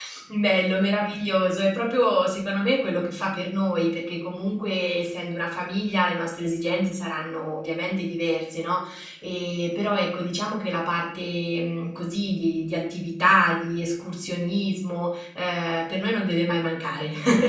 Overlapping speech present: No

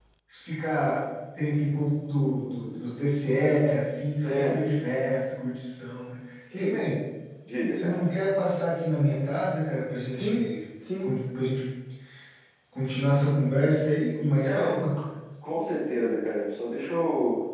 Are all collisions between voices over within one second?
Yes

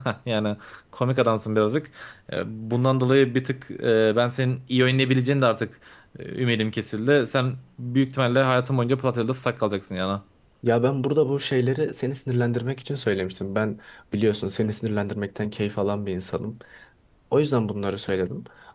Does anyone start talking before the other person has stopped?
No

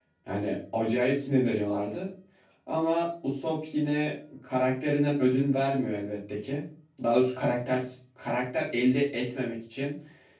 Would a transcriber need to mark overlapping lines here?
No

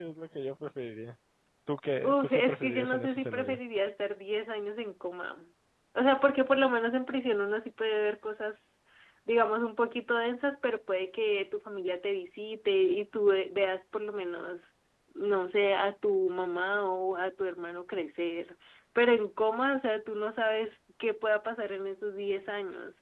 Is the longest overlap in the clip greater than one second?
Yes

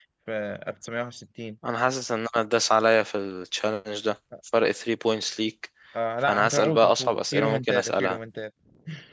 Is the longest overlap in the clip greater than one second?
Yes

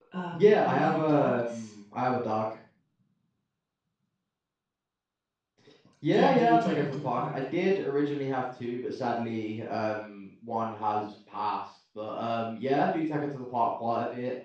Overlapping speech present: Yes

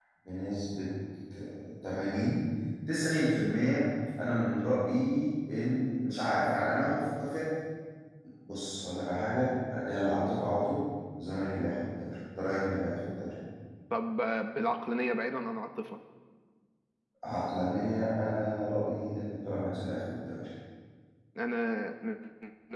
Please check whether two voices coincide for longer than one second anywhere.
No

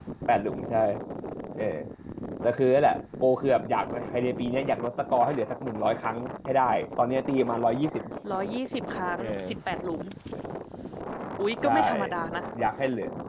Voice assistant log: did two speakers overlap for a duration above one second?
No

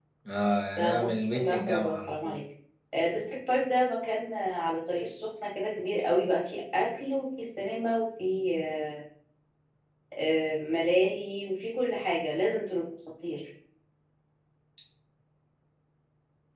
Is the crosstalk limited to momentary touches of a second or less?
No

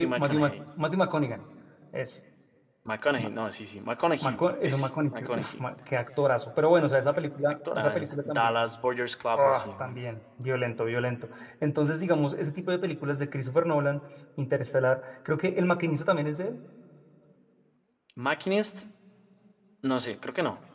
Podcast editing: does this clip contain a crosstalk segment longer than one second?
Yes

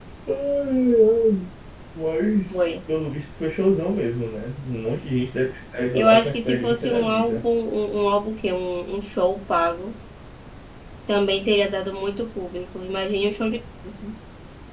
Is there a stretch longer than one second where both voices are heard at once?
Yes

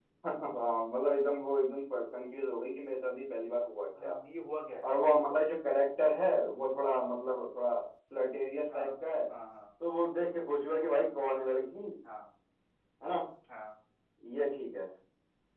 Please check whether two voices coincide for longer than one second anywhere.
No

